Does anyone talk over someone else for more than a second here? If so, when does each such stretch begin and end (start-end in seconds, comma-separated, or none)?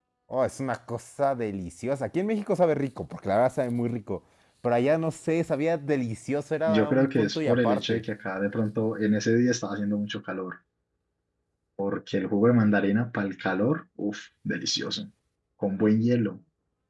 6.7-8.0